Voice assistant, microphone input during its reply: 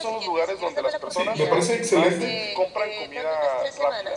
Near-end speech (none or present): present